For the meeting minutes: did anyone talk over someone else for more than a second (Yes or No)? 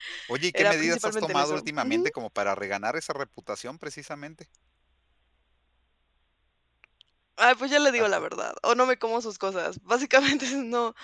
Yes